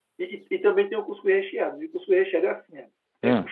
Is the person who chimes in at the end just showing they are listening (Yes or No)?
Yes